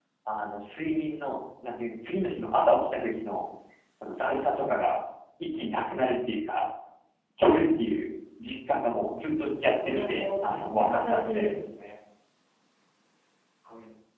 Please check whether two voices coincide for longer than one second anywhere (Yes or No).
Yes